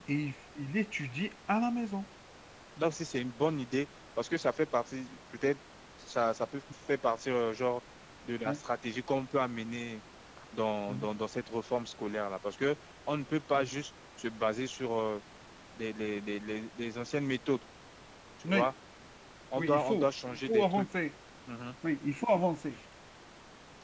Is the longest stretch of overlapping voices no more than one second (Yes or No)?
No